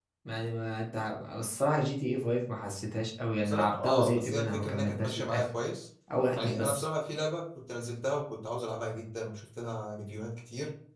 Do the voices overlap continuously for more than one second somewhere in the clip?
Yes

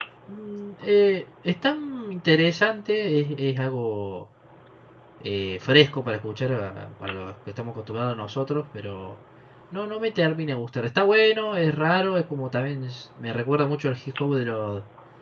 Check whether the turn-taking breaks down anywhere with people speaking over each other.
No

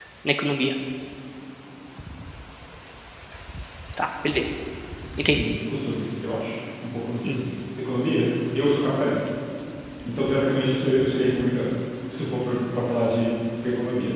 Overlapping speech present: No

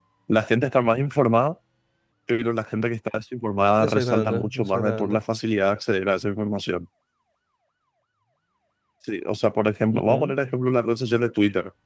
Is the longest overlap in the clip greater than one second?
Yes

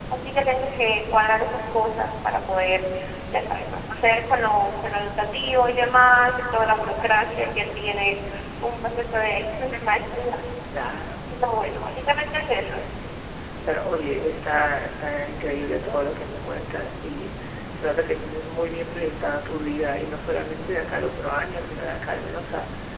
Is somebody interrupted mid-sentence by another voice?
No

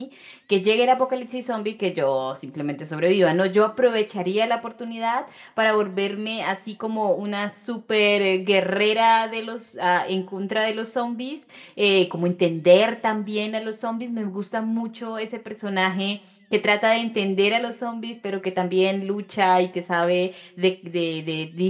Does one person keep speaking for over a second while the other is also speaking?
No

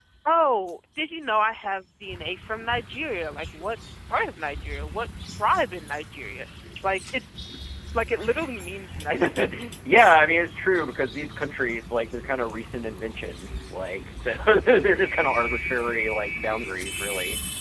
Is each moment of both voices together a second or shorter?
Yes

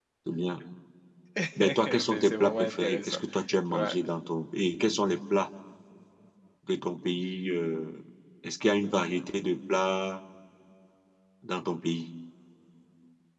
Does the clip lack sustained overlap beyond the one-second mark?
No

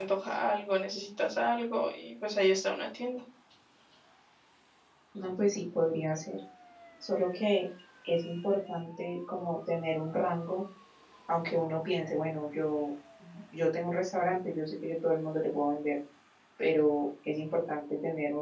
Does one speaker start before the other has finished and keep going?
No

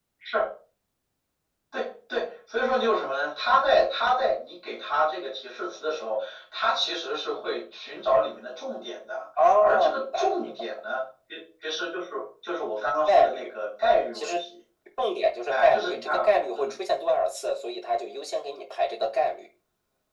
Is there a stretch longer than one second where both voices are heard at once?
Yes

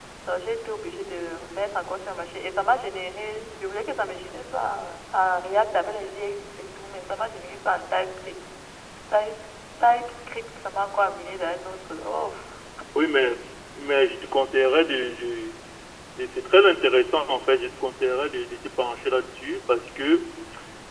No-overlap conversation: Yes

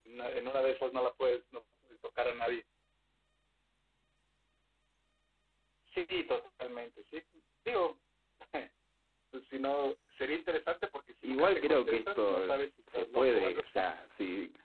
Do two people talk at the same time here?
Yes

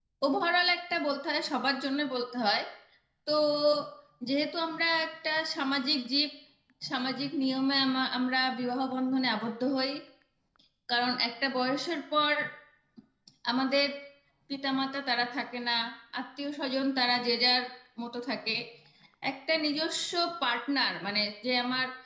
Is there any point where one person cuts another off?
No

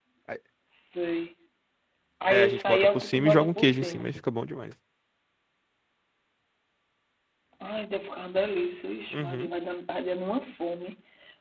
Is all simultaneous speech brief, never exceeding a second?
No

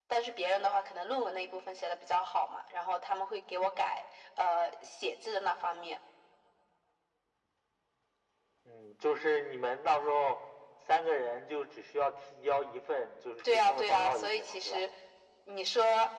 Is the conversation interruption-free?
No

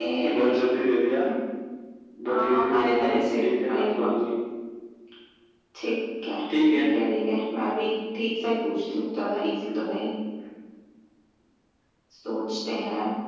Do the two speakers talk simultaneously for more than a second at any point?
Yes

